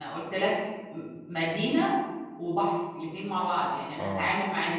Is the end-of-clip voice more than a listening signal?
No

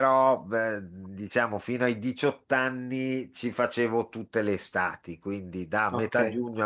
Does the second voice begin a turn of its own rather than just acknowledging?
No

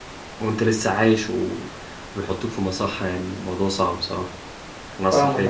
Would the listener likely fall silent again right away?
No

